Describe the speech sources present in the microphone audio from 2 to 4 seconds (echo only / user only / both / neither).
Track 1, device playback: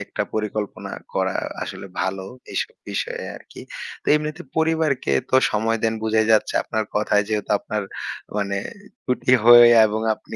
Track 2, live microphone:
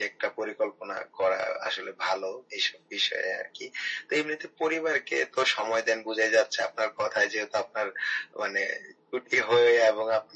echo only